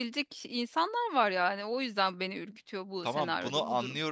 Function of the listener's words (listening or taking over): taking over